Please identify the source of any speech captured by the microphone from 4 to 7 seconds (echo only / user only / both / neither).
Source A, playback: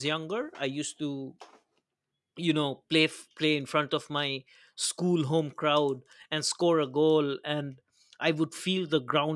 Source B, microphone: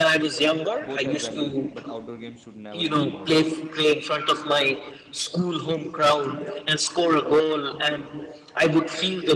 echo only